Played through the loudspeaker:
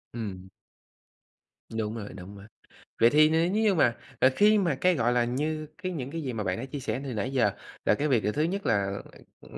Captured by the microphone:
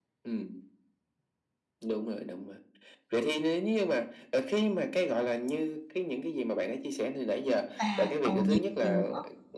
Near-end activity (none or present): present